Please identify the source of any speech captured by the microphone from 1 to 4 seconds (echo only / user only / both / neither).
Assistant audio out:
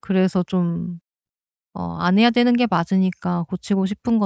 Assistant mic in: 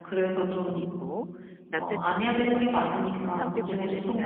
both